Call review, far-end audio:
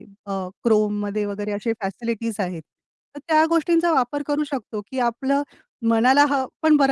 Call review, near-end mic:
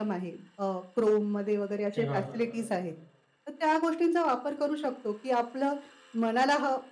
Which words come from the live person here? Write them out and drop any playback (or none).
हां,